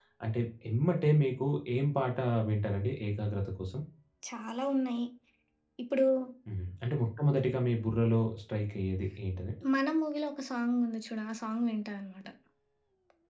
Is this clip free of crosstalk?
Yes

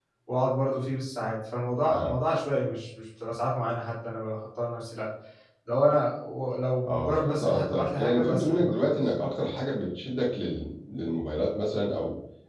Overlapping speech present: Yes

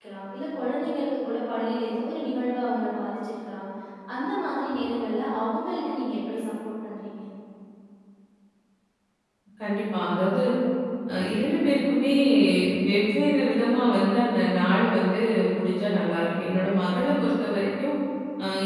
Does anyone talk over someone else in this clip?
No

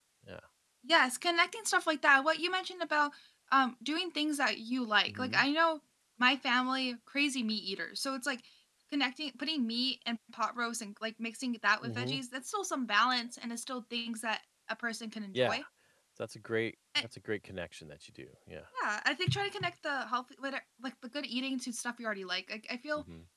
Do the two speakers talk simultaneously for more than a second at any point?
No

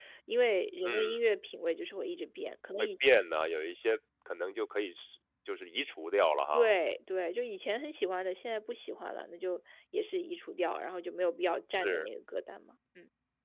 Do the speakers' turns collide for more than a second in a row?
No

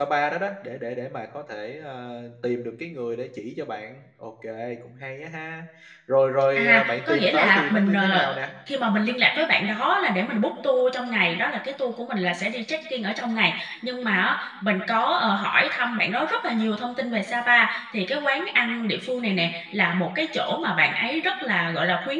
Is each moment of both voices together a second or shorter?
No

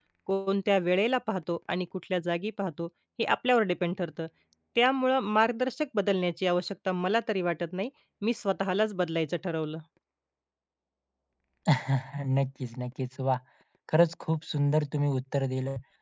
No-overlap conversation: Yes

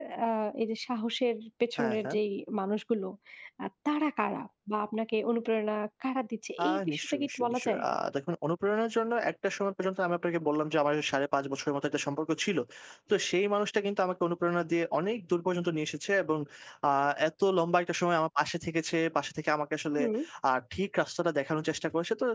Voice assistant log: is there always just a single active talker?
No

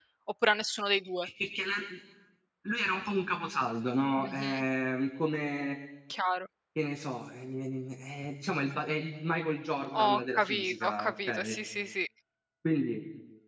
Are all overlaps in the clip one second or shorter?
No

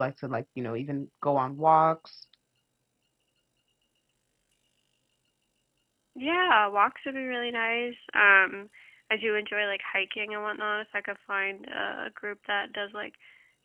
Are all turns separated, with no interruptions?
Yes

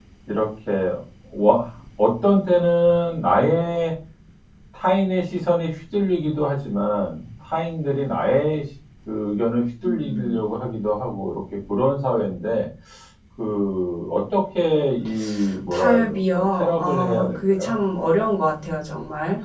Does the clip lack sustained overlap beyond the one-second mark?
No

